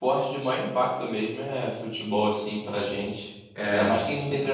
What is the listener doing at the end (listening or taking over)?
listening